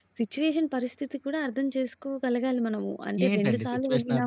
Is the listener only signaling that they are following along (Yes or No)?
No